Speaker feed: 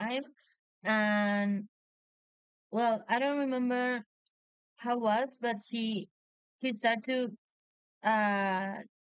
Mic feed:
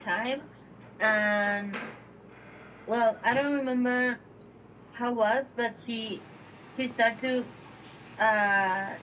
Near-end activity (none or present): none